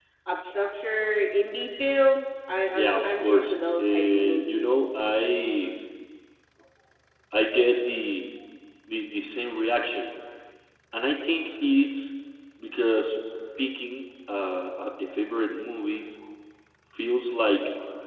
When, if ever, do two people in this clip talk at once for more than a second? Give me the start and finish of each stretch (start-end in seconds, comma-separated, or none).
2.7-4.8